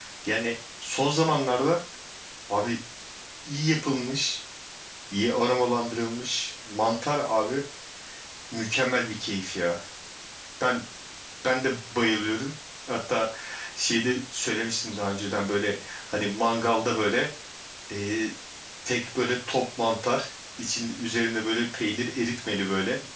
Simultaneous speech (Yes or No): No